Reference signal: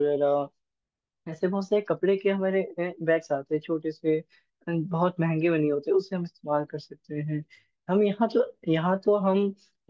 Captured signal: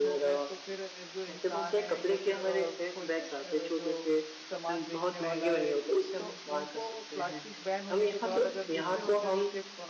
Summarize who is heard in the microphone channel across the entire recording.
both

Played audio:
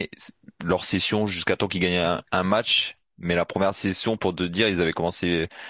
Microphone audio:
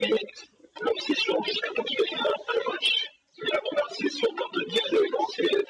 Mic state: echo only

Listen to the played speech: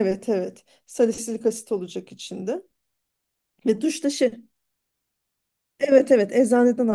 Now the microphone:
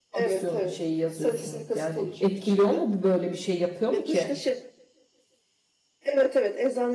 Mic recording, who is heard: both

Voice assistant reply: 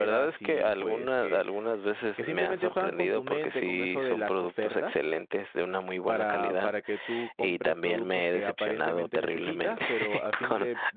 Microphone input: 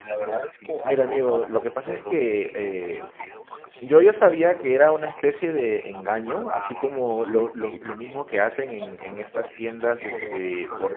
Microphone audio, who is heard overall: both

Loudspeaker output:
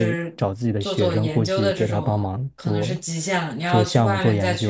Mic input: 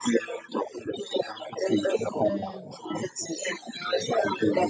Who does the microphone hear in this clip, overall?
both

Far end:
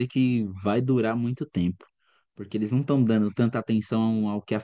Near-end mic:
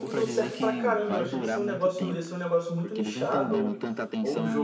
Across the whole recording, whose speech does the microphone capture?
both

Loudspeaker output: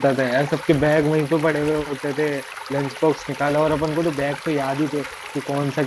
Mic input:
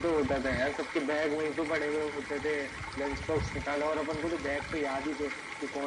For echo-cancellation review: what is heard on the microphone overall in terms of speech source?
echo only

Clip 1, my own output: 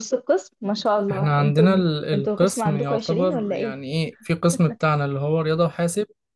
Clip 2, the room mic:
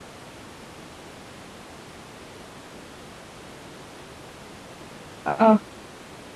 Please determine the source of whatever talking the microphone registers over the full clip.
user only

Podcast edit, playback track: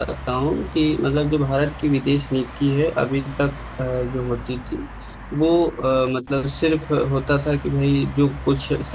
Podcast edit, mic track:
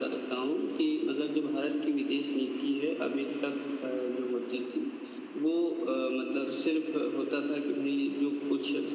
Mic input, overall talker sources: echo only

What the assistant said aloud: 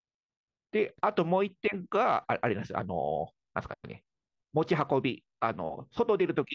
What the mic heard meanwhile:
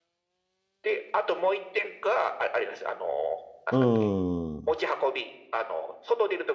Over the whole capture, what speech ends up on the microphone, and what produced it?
both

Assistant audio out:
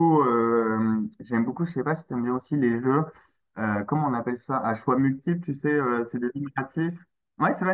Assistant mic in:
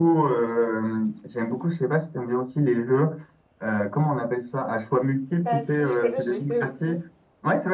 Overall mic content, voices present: both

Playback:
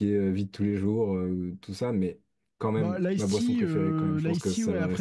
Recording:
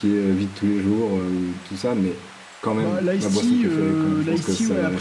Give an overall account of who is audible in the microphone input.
echo only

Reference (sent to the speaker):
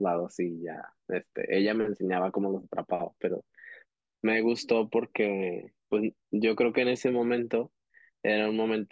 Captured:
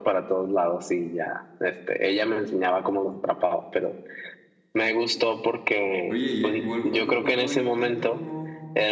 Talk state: both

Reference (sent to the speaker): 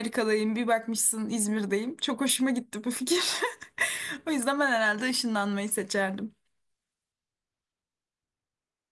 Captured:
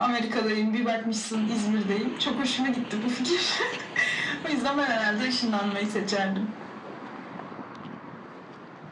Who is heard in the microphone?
echo only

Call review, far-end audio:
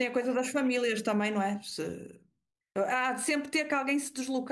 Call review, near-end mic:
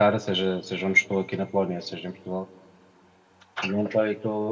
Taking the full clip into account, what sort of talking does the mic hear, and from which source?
user only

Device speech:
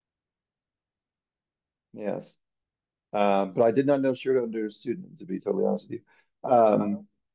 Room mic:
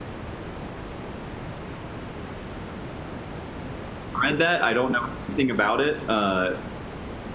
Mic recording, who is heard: user only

